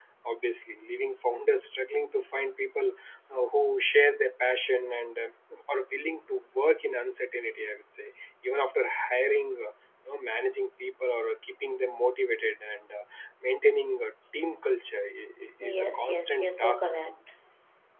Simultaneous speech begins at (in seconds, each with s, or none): 15.6 s